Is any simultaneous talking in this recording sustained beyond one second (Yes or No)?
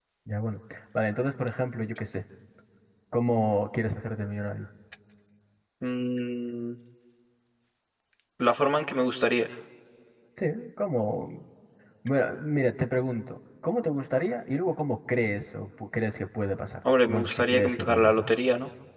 Yes